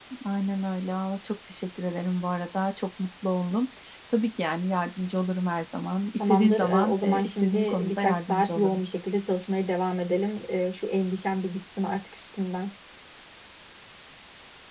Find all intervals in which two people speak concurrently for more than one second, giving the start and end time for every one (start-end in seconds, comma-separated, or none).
6.2-8.8